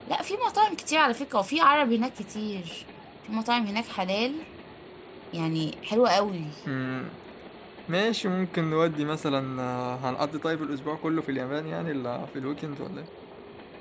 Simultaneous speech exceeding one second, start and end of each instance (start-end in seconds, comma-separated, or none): none